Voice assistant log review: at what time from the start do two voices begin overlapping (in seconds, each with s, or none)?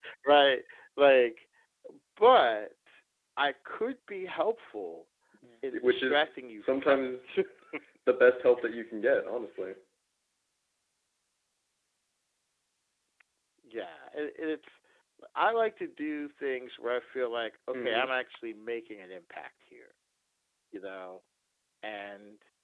5.8 s